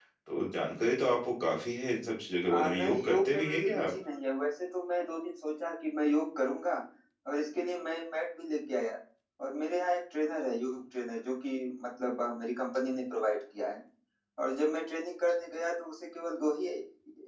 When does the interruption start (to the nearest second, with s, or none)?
2 s